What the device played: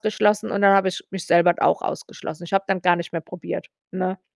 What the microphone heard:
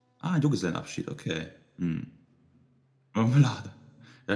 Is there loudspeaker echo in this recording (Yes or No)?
No